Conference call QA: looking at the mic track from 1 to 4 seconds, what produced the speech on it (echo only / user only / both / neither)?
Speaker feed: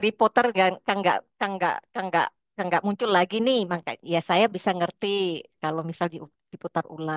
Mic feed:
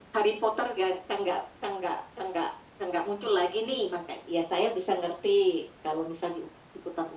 echo only